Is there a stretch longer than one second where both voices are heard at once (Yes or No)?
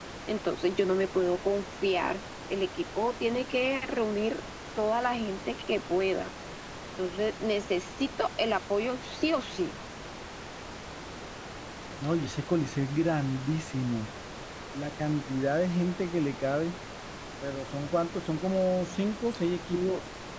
No